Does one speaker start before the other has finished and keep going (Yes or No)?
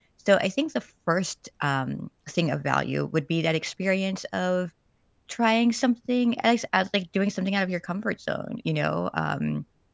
No